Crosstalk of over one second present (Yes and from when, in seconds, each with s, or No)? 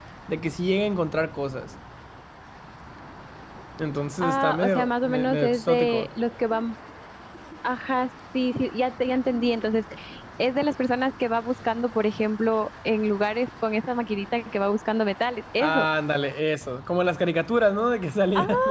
Yes, from 4.2 s